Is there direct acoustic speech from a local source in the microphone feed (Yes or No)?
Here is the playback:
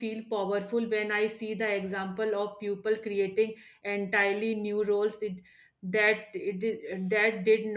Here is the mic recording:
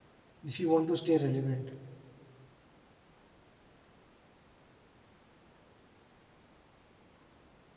Yes